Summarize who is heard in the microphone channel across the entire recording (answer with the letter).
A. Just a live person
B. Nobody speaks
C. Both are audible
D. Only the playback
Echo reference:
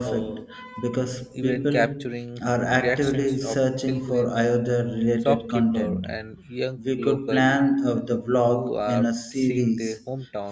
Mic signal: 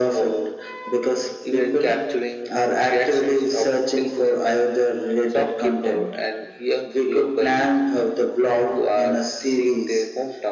D